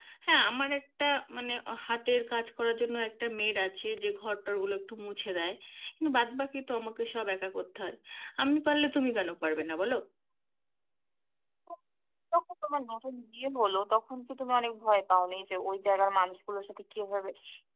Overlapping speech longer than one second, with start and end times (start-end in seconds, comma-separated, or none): none